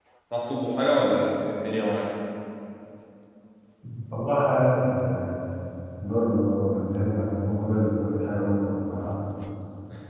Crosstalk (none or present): none